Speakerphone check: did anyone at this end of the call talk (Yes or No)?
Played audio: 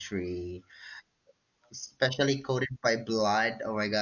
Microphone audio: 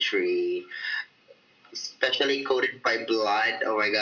No